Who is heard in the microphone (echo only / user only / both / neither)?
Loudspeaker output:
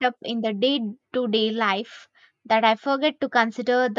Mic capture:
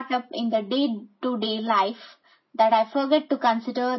echo only